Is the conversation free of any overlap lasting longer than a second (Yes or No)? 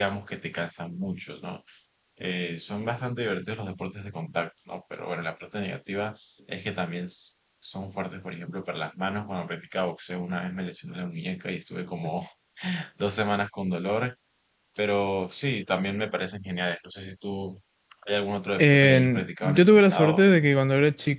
No